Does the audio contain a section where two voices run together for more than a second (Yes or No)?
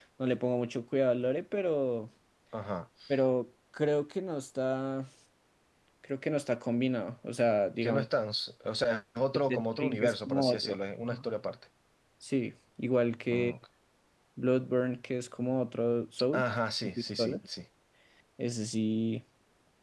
Yes